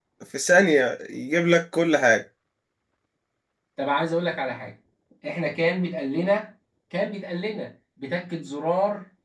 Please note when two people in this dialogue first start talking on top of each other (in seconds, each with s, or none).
none